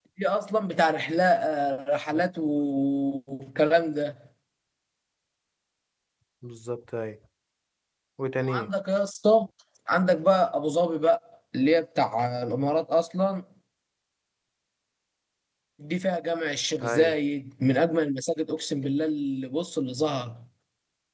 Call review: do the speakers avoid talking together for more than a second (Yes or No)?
Yes